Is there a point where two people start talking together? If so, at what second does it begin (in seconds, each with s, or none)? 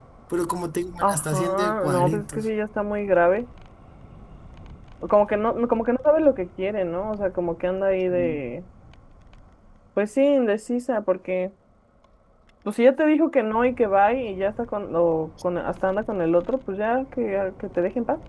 1.0 s